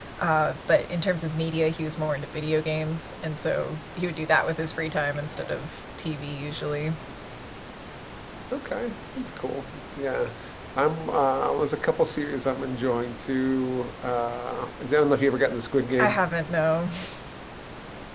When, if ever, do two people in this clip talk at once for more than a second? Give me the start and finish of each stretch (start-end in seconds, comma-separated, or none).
none